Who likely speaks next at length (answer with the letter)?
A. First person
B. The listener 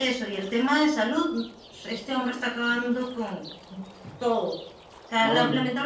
A